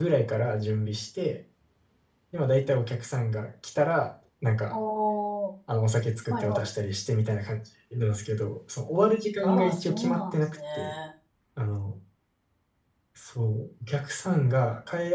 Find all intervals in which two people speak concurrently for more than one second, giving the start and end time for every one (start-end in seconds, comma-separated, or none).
9.4-10.9